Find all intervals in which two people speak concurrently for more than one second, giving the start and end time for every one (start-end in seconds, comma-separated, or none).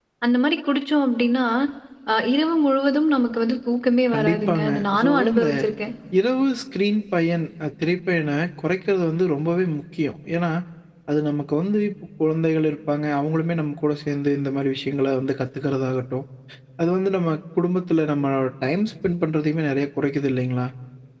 4.1-5.5